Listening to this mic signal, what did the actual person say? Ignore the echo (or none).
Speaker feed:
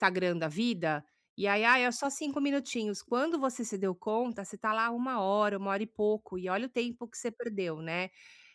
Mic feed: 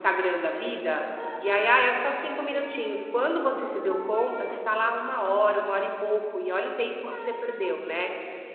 none